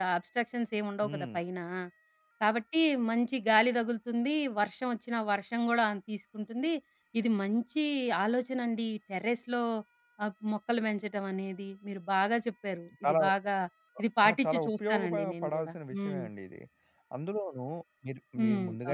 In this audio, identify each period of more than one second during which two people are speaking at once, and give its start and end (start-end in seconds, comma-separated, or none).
14.3-16.2